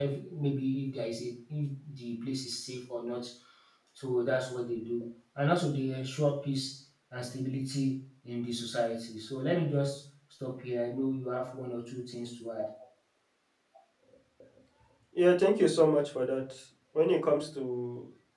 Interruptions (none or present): none